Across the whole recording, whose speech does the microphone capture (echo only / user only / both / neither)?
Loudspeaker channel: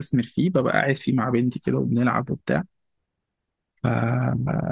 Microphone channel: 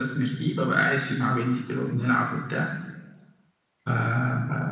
echo only